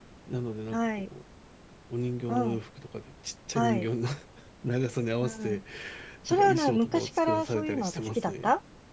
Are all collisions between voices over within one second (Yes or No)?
No